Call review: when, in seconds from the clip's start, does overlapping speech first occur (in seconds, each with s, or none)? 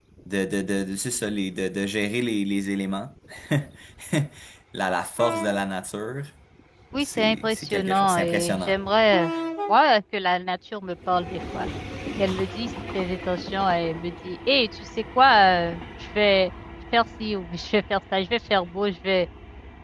7.0 s